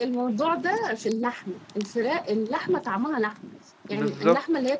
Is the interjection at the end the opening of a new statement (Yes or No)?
No